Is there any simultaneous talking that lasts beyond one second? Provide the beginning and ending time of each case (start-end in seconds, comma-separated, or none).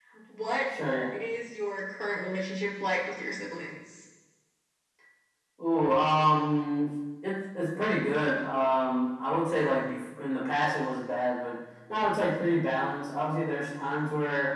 none